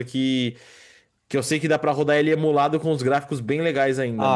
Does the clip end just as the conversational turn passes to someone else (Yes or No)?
Yes